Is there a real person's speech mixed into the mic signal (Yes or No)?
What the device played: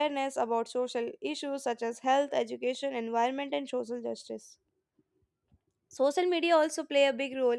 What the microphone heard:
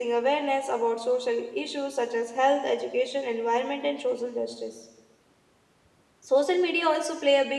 No